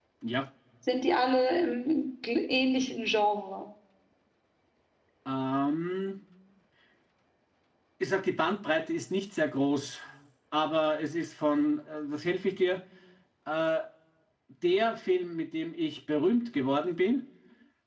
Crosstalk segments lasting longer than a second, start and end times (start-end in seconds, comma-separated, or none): none